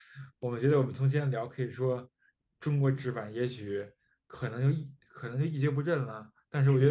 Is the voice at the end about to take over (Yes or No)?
Yes